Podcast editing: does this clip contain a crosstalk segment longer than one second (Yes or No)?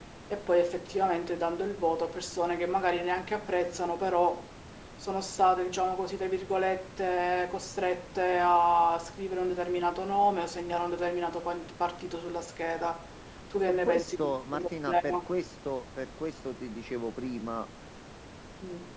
Yes